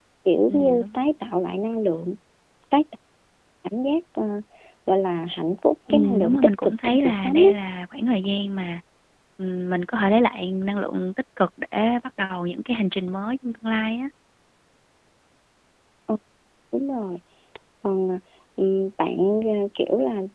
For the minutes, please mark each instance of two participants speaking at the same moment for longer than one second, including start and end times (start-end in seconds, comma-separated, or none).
5.9-7.5